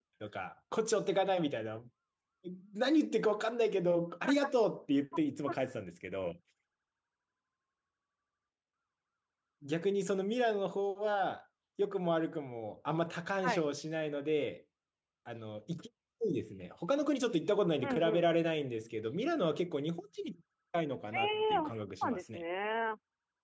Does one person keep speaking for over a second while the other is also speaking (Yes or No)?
Yes